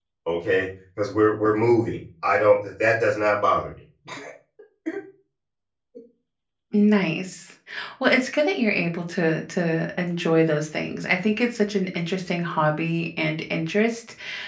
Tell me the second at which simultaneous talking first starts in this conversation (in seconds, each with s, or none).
none